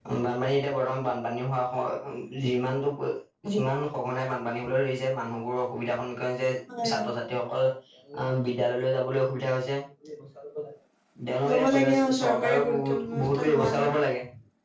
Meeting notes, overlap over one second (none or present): present